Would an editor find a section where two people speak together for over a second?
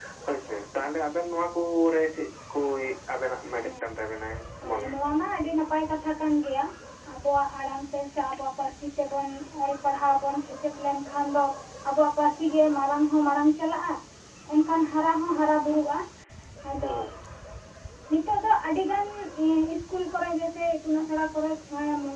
No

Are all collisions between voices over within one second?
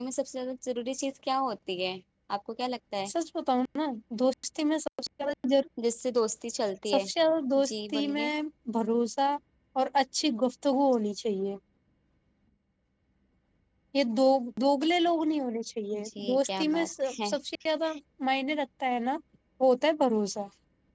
No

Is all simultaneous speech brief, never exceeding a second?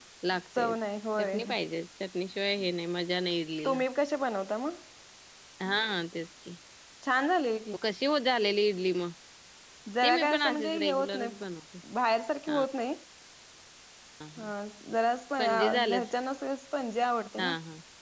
No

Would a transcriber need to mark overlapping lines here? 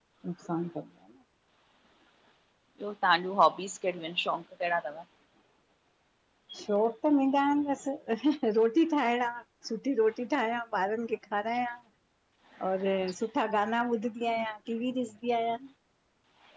No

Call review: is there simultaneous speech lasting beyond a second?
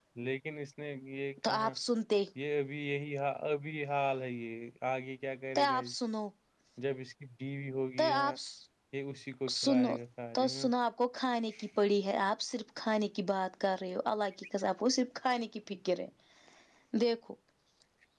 No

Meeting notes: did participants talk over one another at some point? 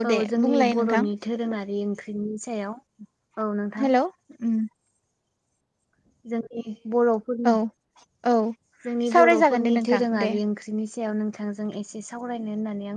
Yes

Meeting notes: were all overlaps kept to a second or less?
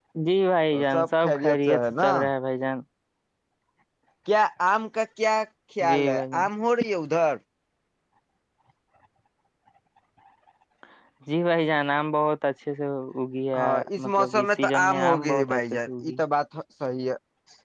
No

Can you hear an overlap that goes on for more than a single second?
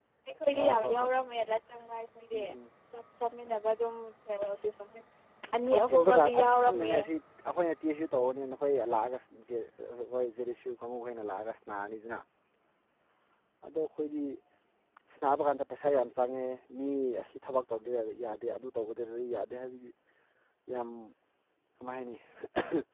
Yes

